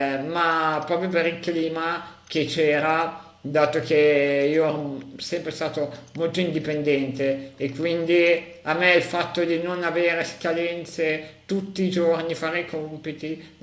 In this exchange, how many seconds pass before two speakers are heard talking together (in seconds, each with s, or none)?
none